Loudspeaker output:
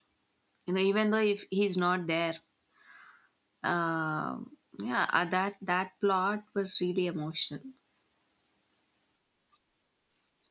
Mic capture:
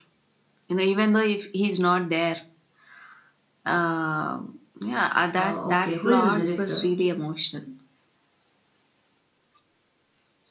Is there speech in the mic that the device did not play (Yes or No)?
Yes